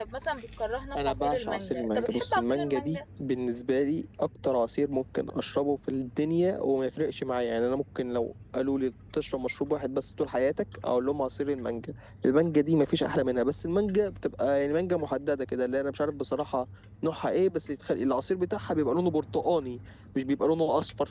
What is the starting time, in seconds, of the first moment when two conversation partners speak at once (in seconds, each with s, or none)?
0.9 s